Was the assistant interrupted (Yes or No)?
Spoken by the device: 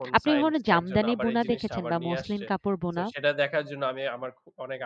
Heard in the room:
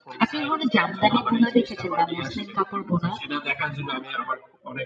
No